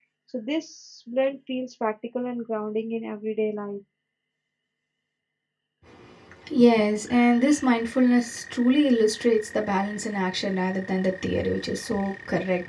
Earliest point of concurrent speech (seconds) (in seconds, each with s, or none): none